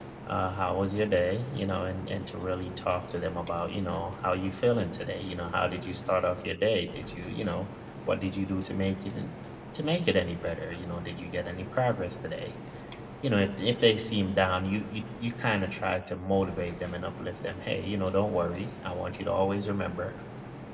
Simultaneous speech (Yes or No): No